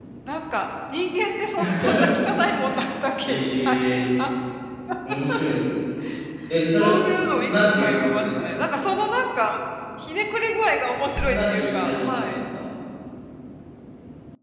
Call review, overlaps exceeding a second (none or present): present